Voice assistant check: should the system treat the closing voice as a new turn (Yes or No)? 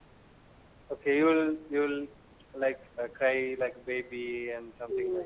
Yes